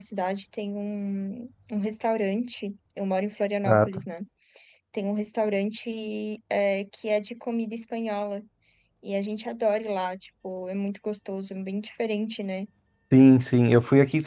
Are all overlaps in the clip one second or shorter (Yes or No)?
Yes